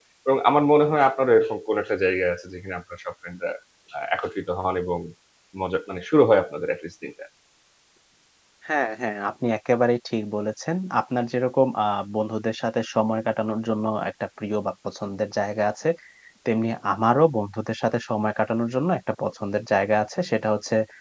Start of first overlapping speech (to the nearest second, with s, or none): none